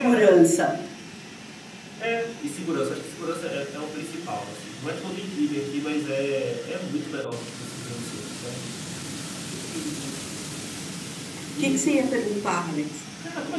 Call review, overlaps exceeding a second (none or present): none